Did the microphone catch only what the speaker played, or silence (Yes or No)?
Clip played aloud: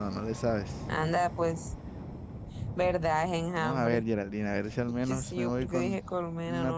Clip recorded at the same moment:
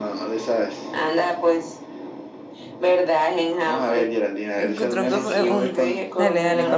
No